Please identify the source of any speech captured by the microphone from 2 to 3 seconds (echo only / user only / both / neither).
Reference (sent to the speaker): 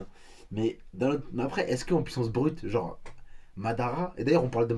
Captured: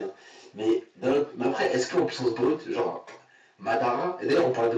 echo only